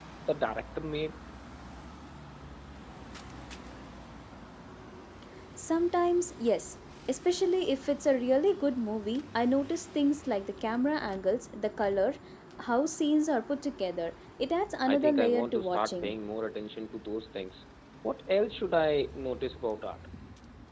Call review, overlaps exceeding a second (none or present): present